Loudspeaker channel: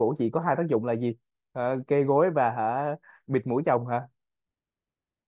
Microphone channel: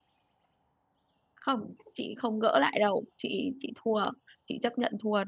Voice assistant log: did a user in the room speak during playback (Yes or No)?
Yes